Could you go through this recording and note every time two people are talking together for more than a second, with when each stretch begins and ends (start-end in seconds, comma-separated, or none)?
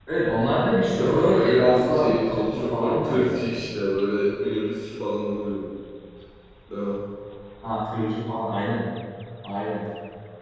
0.9-3.4